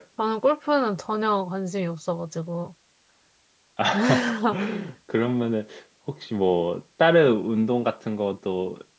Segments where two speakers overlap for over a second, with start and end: none

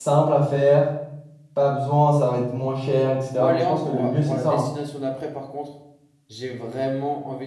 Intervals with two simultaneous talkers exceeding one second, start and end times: 3.3-4.7

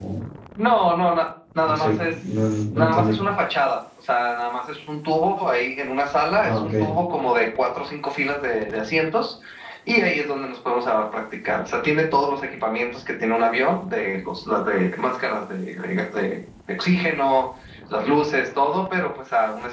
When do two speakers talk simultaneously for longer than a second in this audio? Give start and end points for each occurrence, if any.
1.6-3.2

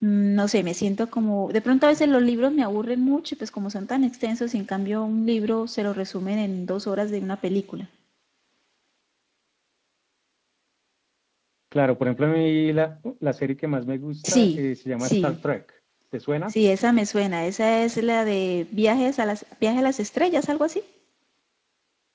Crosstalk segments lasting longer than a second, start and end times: none

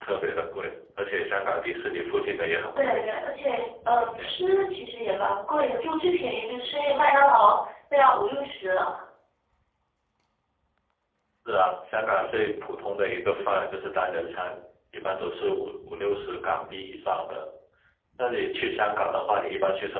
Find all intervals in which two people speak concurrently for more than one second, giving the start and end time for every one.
none

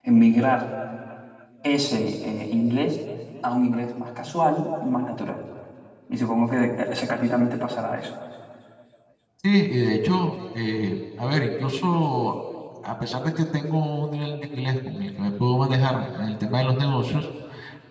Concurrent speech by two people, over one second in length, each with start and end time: none

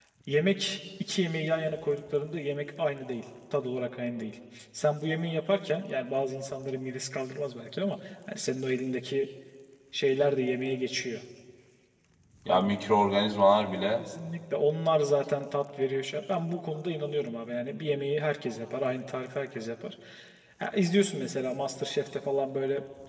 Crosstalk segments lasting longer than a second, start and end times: none

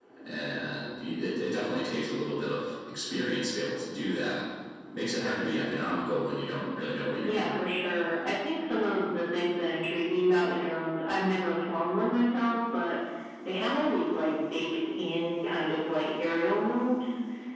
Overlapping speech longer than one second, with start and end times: none

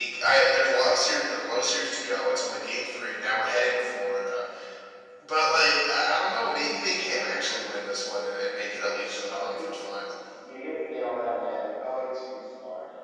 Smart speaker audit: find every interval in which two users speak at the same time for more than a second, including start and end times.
none

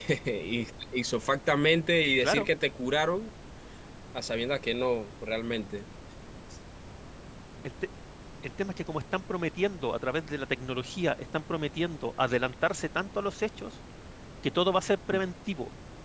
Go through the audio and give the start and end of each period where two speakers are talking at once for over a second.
none

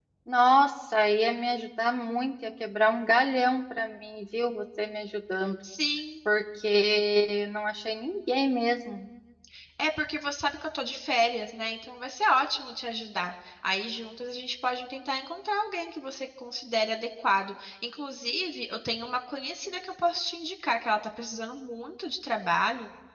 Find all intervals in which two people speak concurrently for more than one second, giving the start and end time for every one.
none

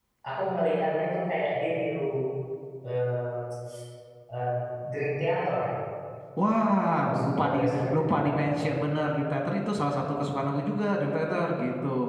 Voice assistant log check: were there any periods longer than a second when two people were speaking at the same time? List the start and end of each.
7.0-8.6

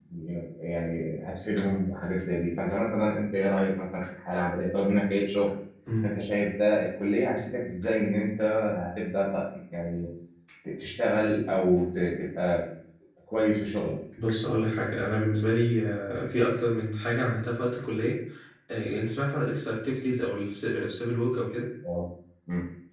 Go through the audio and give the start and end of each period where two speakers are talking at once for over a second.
none

